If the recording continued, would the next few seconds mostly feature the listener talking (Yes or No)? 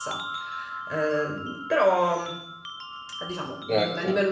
No